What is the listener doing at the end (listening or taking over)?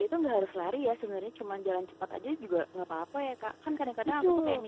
listening